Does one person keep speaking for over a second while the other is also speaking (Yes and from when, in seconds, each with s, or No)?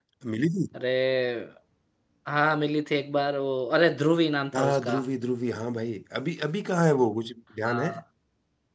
No